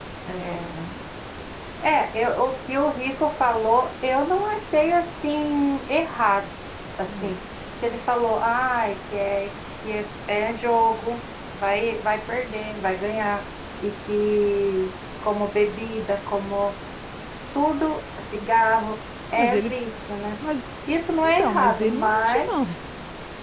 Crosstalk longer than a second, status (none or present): present